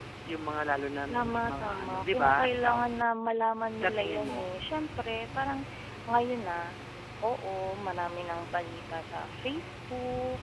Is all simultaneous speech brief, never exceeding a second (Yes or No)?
No